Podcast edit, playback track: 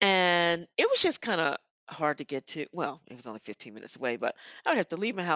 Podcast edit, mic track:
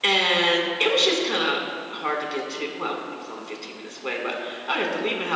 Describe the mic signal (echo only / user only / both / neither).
echo only